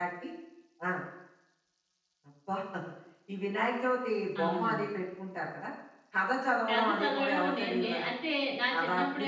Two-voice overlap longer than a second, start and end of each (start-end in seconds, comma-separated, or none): 6.7-8.1